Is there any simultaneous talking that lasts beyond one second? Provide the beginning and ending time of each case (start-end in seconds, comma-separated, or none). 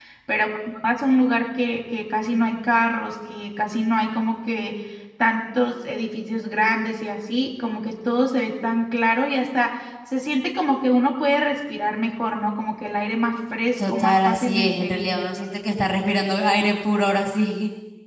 13.8-15.1